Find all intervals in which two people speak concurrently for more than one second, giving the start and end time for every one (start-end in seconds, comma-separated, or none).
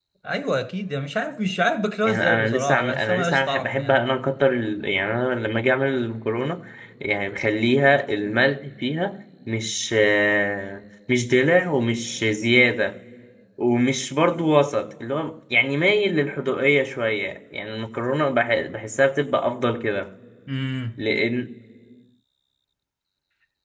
2.0-4.1